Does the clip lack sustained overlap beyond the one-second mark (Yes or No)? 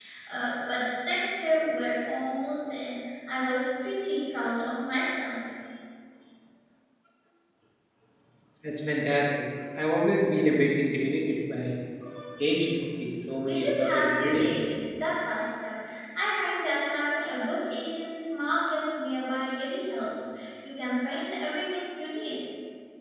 No